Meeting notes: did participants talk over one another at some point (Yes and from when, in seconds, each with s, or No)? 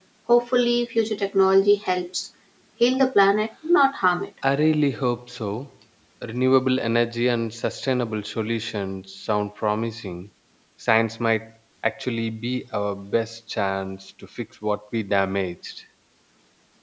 No